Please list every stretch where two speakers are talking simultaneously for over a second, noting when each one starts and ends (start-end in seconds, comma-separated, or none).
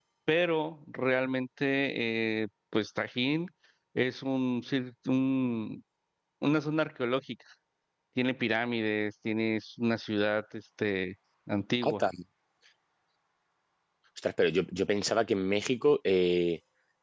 none